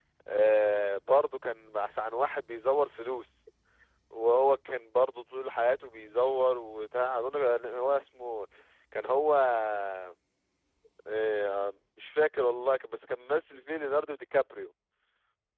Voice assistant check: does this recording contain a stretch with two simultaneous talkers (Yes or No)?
No